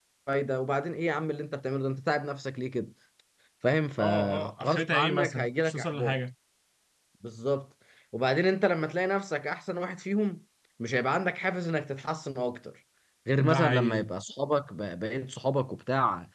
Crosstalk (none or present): present